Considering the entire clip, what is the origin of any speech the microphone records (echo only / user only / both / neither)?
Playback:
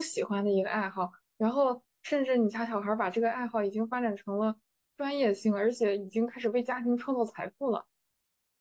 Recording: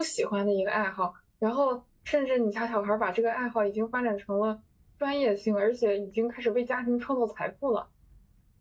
echo only